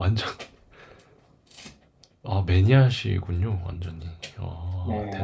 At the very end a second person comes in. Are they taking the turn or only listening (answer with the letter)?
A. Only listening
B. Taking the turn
B